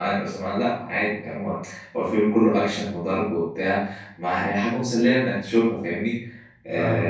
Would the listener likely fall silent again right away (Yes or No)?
Yes